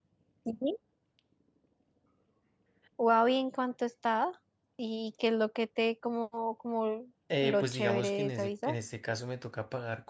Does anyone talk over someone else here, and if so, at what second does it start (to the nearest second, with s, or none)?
7 s